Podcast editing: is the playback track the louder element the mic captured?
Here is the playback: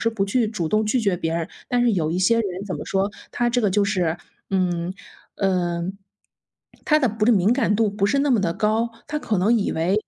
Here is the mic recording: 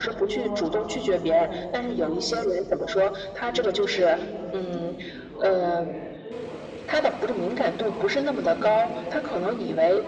Yes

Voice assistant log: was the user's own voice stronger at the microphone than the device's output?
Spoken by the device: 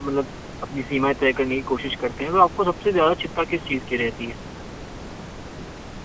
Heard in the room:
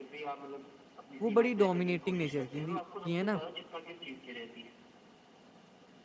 Yes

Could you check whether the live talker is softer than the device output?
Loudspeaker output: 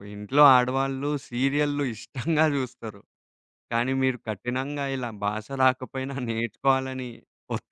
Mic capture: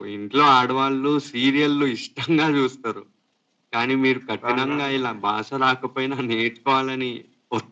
Yes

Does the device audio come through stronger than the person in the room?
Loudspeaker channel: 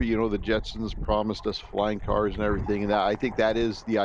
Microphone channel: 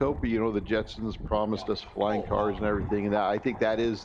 Yes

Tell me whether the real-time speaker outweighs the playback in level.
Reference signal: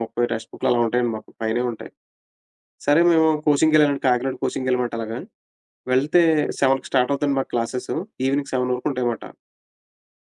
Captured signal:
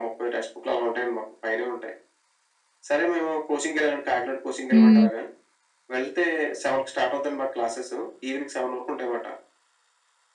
Yes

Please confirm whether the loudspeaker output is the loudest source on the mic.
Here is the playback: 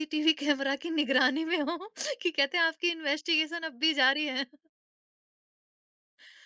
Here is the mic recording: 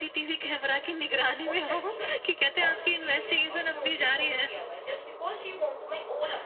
Yes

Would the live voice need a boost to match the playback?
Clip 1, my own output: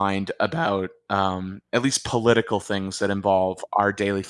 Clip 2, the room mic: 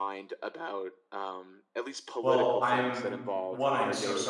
No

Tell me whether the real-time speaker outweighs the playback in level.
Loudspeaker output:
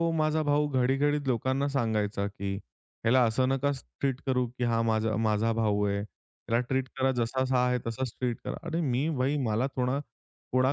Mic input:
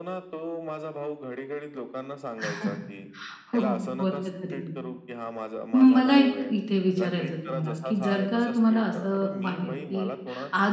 Yes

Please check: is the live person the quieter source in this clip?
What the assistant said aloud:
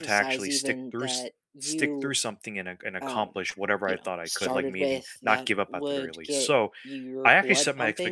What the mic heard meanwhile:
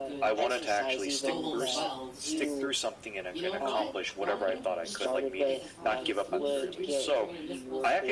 Yes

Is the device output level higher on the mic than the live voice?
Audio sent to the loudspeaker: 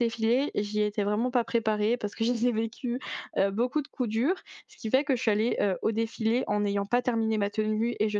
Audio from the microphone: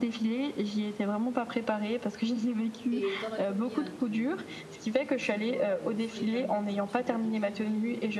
Yes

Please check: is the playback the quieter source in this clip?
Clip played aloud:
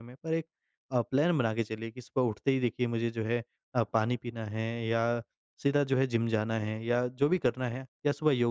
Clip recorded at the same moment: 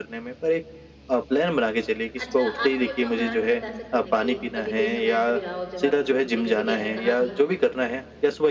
No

